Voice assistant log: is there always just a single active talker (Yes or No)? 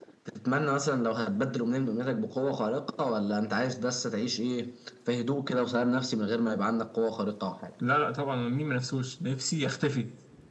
Yes